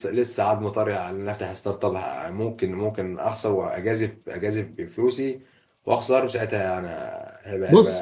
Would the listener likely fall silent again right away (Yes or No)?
No